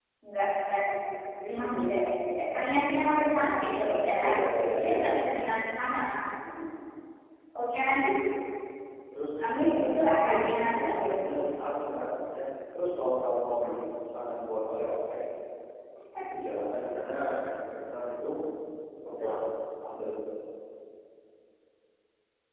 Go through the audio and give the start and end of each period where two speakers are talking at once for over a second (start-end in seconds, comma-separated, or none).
9.7-11.0